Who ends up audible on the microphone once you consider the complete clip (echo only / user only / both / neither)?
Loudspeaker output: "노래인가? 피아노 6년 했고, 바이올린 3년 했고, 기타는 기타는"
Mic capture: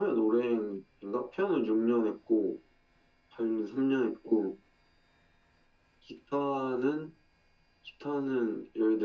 echo only